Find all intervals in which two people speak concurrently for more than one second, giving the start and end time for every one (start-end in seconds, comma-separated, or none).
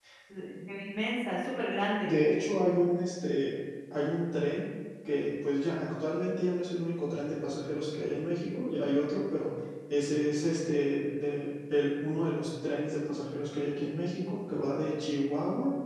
none